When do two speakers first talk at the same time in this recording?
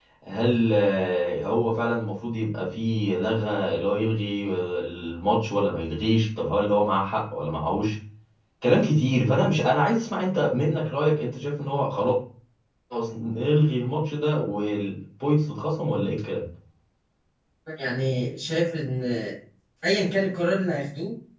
none

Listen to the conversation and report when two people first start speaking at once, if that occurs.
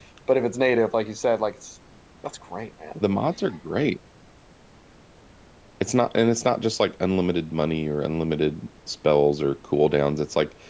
none

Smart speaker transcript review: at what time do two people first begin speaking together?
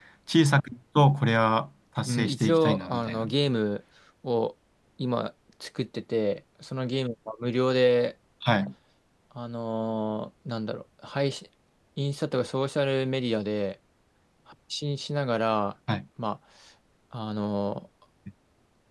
2.1 s

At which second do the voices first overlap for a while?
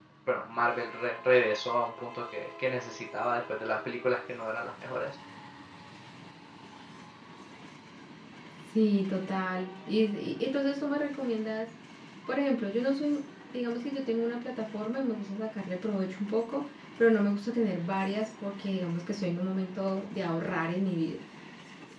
none

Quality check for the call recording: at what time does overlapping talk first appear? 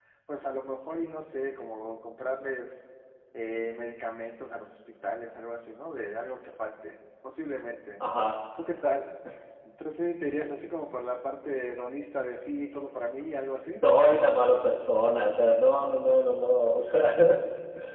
none

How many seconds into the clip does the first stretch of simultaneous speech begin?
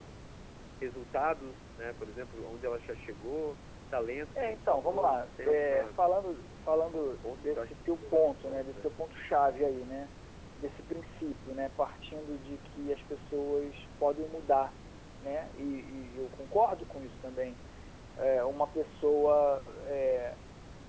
4.3 s

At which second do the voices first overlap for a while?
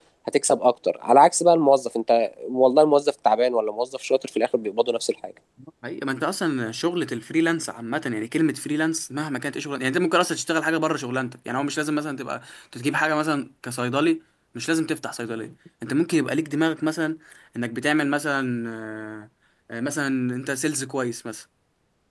none

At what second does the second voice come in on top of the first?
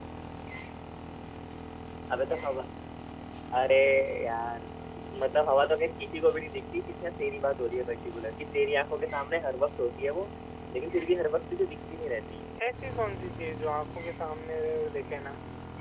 none

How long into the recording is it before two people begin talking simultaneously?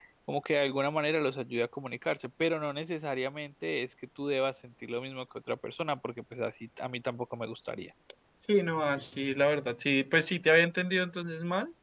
none

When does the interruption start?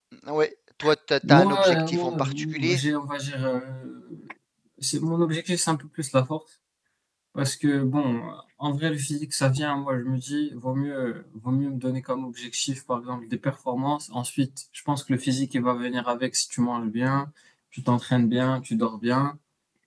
1.3 s

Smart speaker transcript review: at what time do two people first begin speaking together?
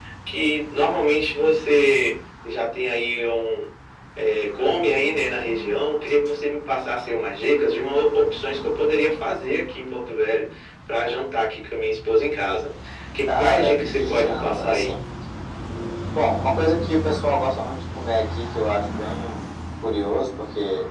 13.2 s

